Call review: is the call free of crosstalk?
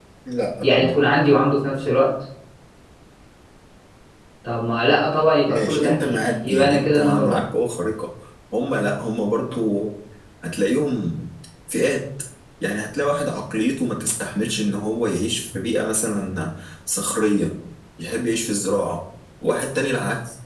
No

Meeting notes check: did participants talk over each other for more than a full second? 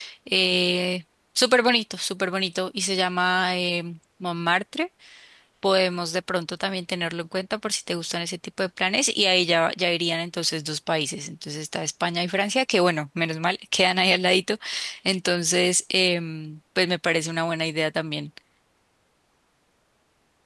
No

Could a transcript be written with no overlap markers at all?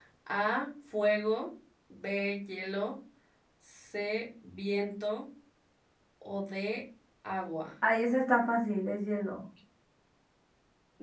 Yes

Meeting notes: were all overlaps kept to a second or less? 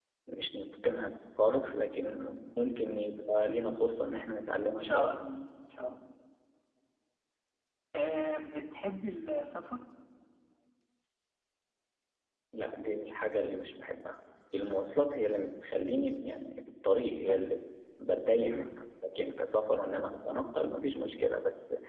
Yes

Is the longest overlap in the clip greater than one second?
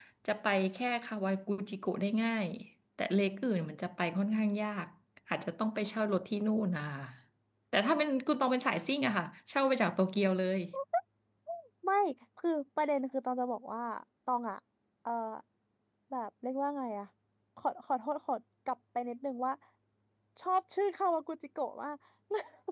No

